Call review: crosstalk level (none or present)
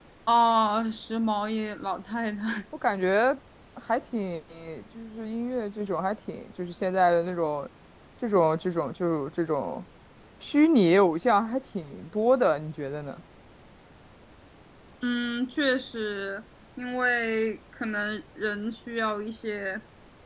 none